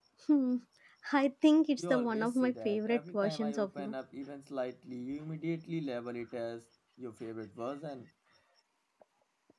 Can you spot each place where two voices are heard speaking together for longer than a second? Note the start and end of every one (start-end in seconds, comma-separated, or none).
1.8-3.9